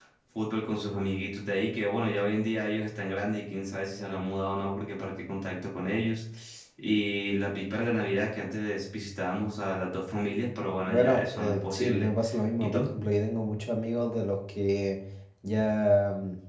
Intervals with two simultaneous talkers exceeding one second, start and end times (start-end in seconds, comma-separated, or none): 10.9-12.1